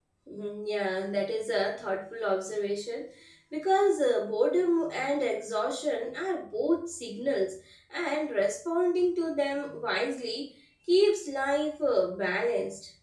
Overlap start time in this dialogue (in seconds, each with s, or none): none